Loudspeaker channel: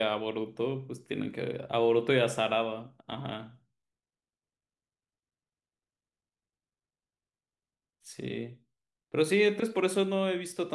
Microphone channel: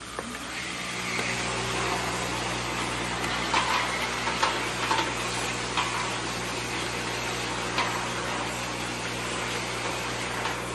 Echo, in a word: none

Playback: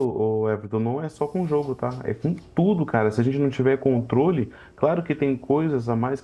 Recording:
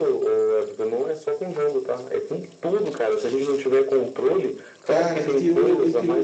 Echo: present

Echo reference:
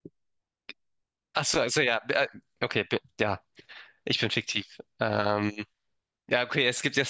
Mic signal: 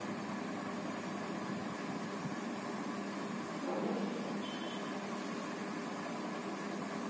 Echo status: none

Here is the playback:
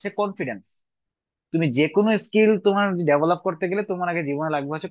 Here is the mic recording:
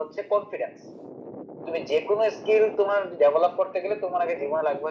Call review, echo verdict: present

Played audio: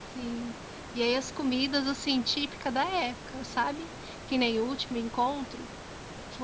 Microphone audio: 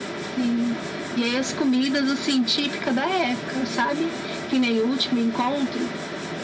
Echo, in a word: present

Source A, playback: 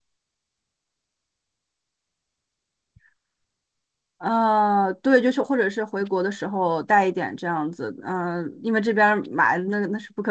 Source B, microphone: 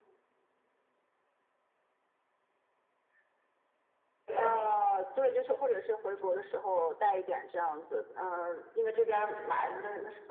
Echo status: present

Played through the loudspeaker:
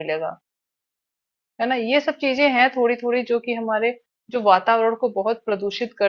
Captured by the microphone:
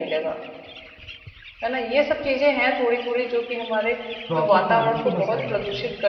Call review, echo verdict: present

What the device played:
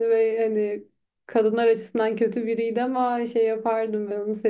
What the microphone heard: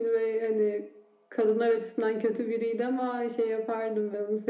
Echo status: present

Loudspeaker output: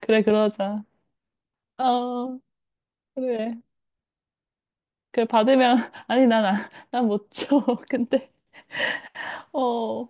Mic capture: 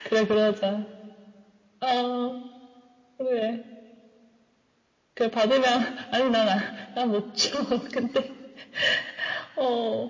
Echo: present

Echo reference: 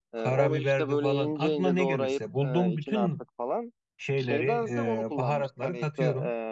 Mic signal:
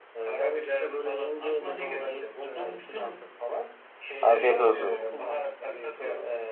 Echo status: present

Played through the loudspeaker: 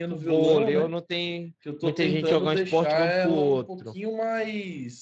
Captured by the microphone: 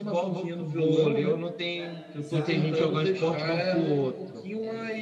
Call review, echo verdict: present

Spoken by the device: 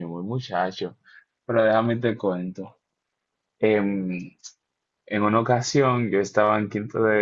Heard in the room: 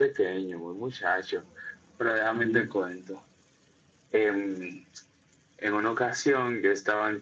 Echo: present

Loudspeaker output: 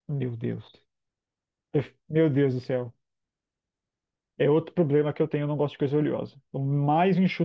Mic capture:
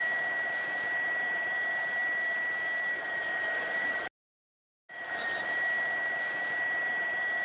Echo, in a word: none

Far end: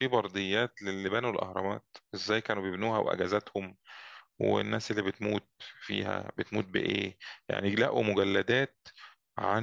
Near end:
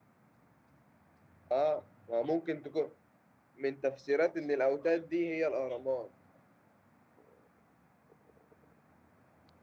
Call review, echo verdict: none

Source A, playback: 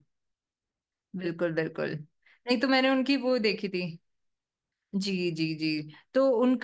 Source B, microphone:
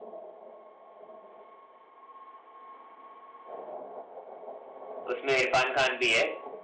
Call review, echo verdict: none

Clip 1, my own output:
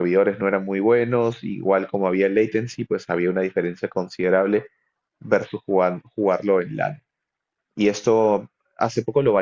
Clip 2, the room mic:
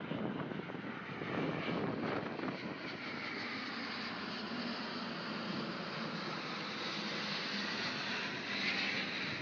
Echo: none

